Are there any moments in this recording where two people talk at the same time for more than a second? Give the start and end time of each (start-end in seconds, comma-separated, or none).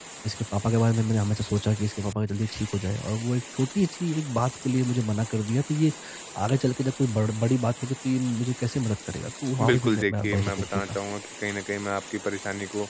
9.7-11.0